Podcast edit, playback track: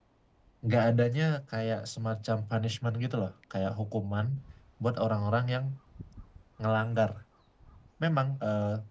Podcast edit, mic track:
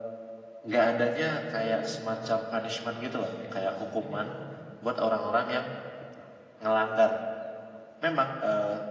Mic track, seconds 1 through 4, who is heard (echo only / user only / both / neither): both